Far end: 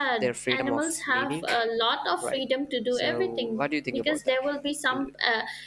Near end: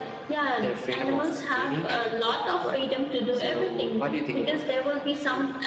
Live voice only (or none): none